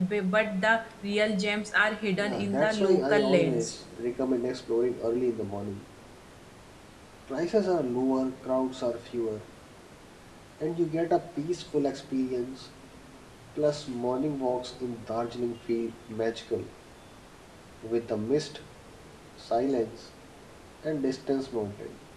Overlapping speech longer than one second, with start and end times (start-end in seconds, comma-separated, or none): 2.2-3.8